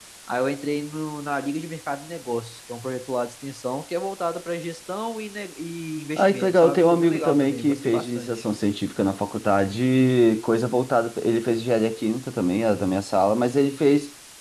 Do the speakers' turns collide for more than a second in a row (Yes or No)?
Yes